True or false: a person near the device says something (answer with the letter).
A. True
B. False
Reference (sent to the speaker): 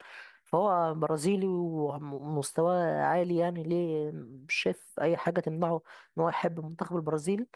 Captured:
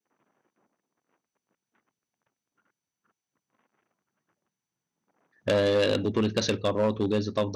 A